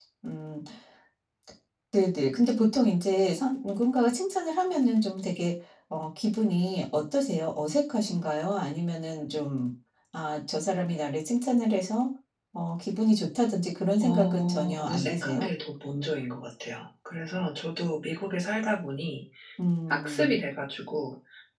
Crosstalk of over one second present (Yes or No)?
Yes